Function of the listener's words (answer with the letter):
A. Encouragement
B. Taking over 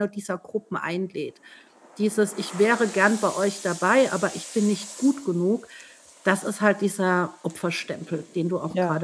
B